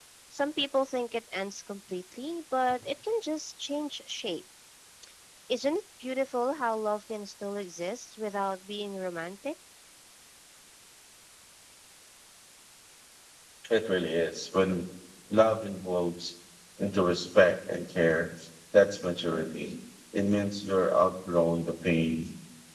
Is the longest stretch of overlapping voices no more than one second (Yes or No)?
Yes